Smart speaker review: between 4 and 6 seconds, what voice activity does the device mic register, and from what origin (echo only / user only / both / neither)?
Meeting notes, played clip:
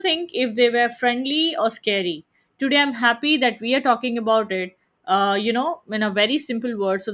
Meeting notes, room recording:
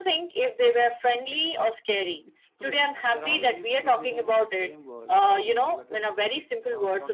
both